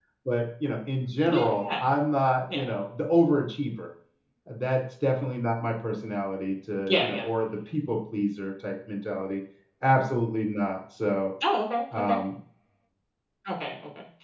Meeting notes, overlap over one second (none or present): none